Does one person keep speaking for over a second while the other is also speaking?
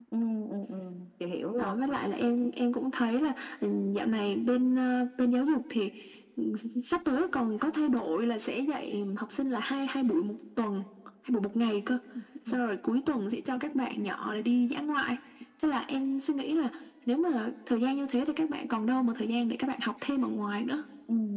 No

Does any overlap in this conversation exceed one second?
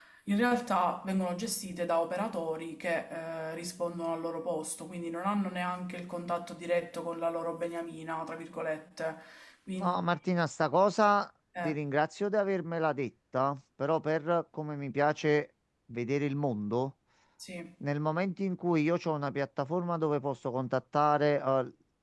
No

